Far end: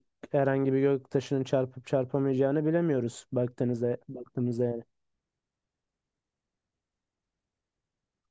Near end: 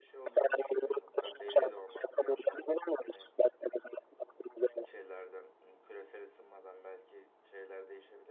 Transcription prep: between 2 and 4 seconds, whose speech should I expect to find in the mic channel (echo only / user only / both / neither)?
both